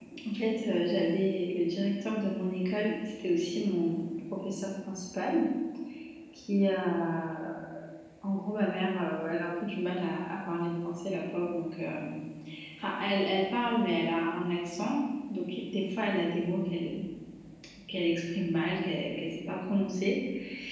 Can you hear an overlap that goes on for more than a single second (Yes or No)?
No